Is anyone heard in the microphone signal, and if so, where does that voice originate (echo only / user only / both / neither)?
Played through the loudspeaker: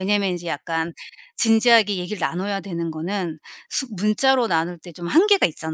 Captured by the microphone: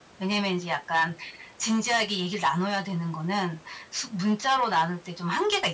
echo only